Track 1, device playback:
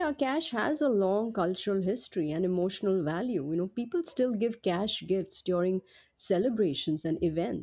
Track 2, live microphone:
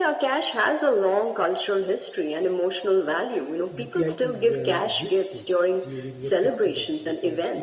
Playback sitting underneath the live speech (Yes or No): No